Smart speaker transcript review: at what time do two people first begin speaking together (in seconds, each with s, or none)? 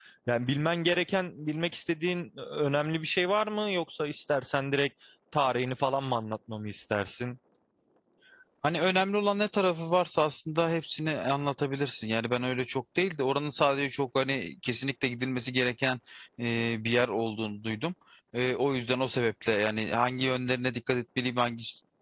none